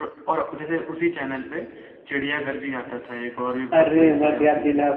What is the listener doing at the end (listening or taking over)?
taking over